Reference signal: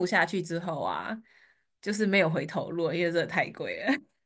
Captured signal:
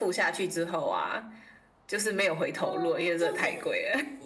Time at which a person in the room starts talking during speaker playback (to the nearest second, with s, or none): 3 s